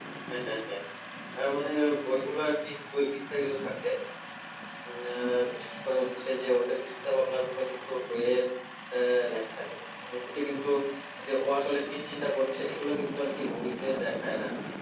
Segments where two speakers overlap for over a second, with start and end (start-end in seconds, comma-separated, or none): none